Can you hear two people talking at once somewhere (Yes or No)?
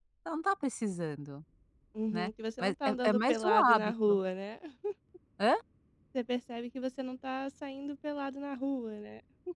Yes